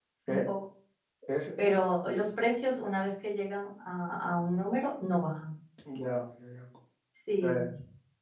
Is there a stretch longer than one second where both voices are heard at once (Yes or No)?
No